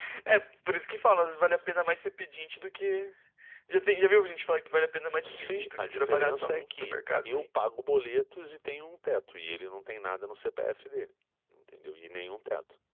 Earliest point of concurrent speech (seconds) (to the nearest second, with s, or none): 5 s